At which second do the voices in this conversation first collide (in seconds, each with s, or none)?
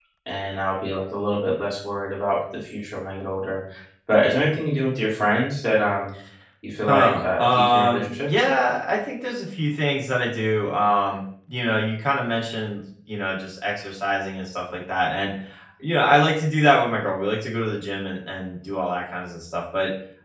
6.9 s